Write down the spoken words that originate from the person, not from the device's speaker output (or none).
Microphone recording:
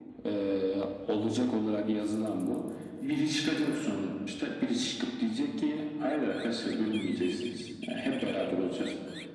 none